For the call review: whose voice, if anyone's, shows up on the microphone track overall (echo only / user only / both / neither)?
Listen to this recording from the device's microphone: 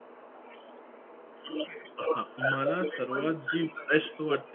both